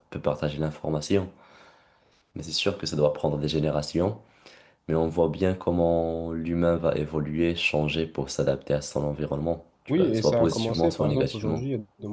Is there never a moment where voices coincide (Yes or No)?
No